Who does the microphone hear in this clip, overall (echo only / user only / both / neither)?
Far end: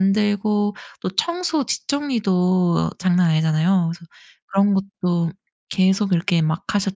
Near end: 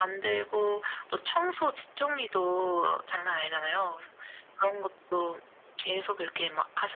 echo only